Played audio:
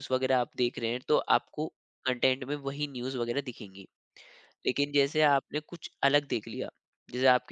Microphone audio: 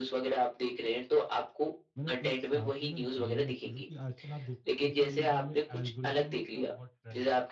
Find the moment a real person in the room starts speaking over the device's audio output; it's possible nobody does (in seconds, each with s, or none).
2.0 s